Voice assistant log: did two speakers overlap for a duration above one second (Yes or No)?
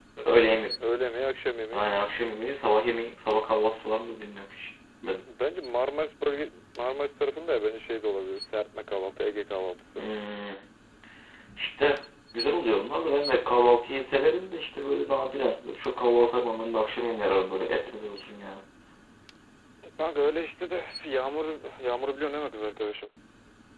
No